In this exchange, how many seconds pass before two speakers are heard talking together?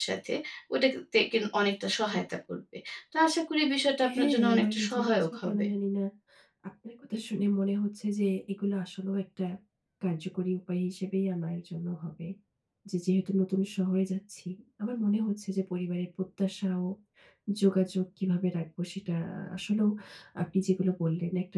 4.0 s

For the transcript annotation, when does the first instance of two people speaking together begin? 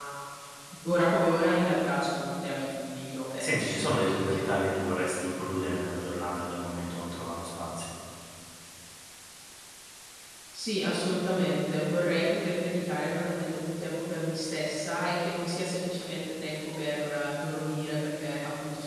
3.4 s

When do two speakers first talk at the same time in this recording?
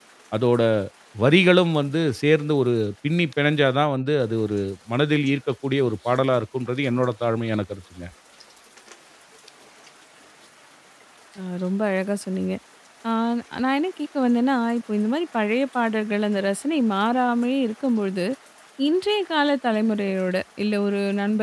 none

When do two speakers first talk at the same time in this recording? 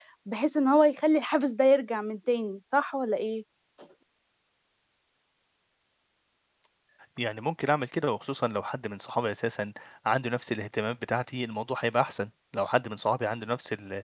none

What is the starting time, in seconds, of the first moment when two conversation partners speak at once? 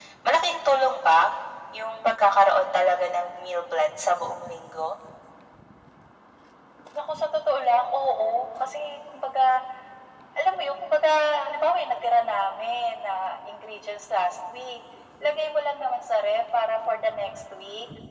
none

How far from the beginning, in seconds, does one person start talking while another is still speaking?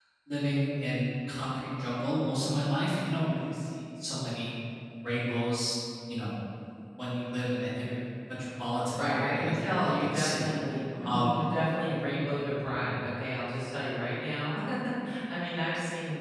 9.0 s

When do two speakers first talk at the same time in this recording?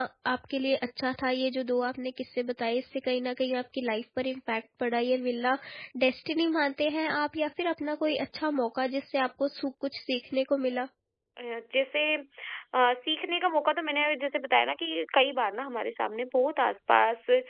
none

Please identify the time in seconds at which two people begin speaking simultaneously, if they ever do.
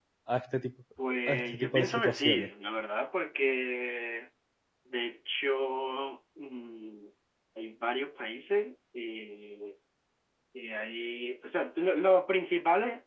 1.3 s

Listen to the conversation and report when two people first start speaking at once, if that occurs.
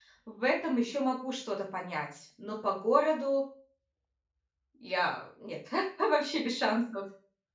none

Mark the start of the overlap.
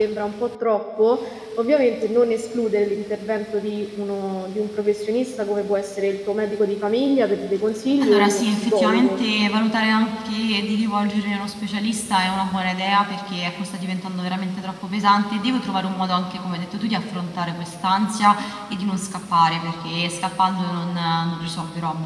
8.0 s

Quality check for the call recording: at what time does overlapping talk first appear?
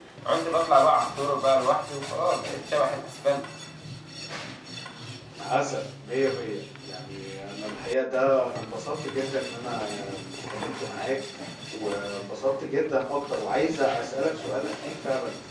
none

